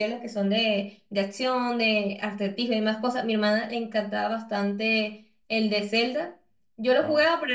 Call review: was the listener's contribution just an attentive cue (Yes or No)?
Yes